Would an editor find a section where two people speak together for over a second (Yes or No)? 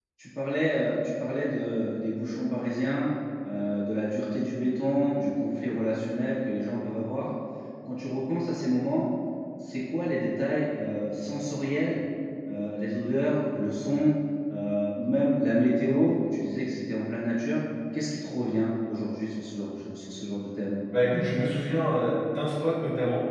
No